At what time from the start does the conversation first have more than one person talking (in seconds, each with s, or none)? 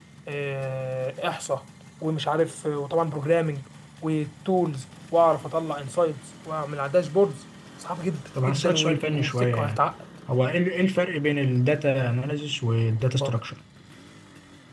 8.3 s